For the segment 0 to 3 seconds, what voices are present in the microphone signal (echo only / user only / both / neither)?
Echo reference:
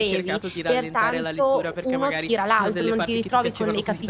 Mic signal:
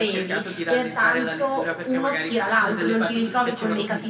echo only